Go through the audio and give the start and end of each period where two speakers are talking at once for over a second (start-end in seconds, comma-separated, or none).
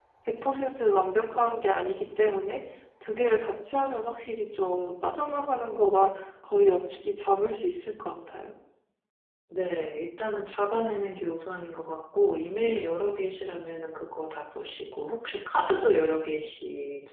none